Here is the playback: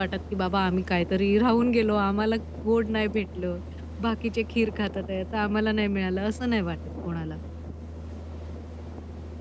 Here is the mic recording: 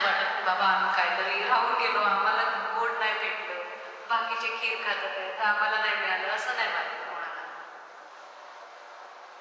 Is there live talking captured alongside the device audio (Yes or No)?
No